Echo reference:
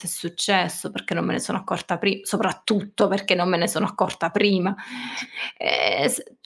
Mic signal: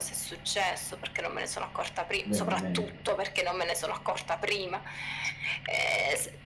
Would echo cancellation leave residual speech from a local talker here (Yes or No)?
Yes